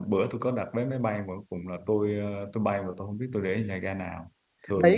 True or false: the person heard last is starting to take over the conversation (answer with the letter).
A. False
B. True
B